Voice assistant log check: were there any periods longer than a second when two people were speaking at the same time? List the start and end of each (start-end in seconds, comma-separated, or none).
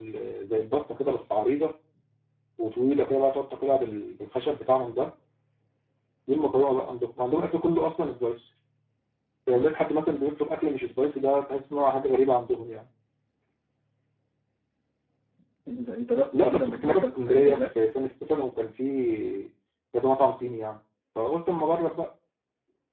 16.3-17.8